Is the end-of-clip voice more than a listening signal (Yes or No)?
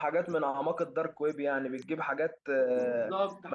Yes